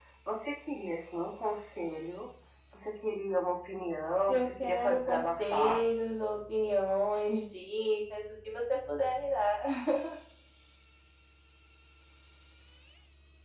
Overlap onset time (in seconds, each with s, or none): 4.3 s